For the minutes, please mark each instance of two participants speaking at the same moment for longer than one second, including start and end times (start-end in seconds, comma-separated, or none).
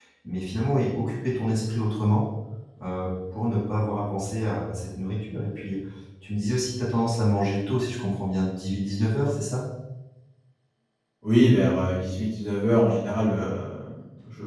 none